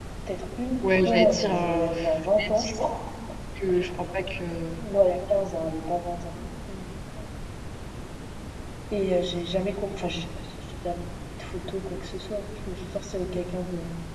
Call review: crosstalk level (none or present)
present